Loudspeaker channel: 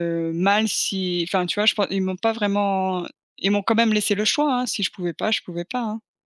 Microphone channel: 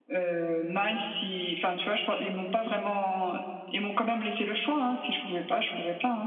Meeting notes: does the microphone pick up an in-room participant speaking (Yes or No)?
No